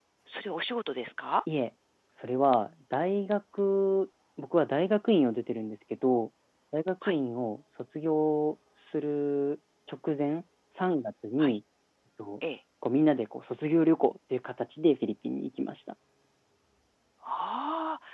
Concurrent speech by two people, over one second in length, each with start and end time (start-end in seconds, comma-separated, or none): none